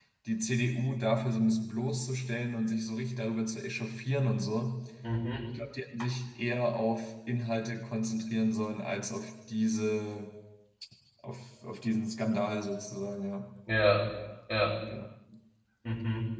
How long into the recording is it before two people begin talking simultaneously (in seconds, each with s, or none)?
none